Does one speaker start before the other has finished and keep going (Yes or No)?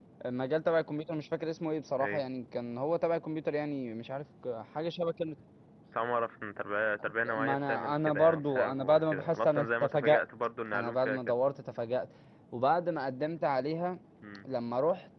Yes